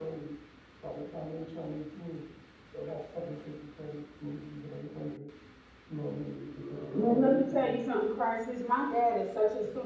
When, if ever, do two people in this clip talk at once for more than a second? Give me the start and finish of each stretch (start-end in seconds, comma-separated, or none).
6.4-7.8